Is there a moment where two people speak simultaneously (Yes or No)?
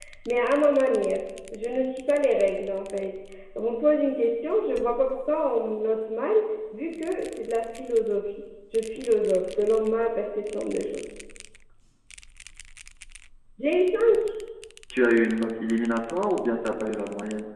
No